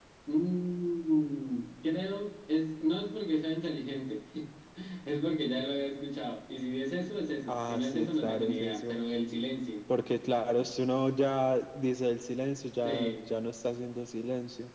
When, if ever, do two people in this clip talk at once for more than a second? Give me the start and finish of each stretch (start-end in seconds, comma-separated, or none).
7.5-9.0